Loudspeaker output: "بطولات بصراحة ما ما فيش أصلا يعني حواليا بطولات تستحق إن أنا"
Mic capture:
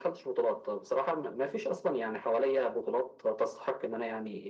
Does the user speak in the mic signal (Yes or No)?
No